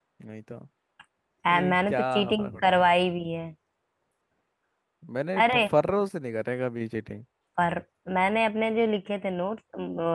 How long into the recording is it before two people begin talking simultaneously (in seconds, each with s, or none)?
1.6 s